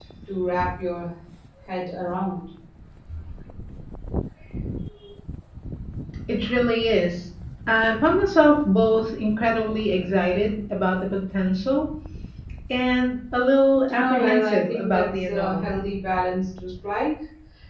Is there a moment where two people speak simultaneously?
Yes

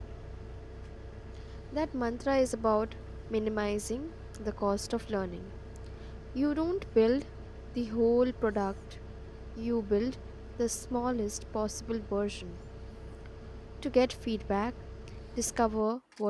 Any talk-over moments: No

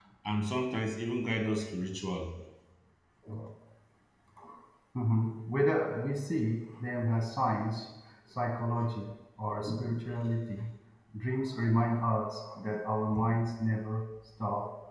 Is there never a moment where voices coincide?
Yes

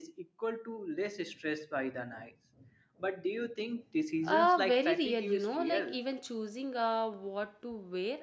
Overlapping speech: Yes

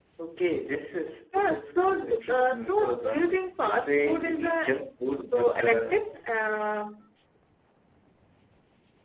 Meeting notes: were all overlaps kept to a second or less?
No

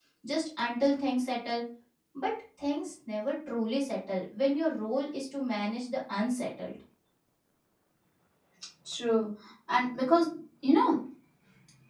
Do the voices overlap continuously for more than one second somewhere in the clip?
No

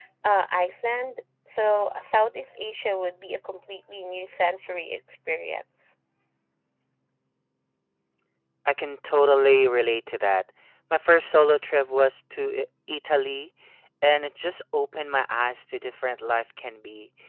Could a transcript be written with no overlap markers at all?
Yes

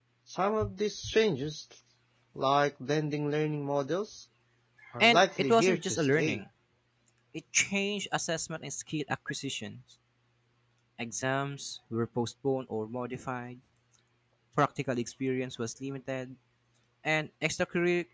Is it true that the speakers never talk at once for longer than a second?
No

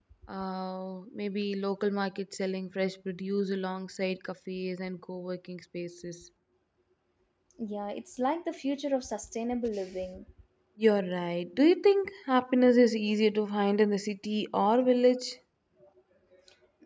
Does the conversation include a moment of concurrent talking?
No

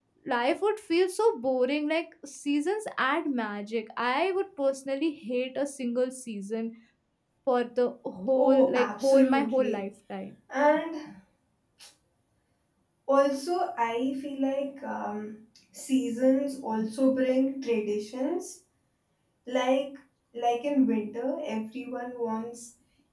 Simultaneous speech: Yes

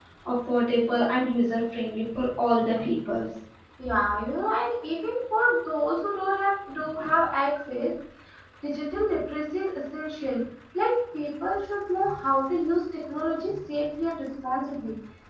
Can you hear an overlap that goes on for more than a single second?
No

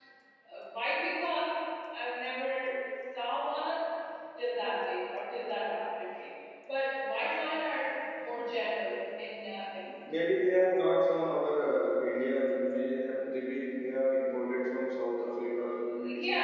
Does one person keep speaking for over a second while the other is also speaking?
No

